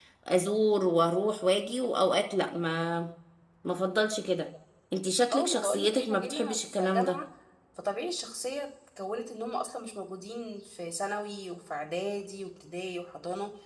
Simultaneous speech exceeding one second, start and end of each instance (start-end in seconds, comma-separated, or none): 5.3-7.2